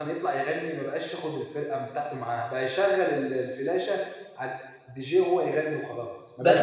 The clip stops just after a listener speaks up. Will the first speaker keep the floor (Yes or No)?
No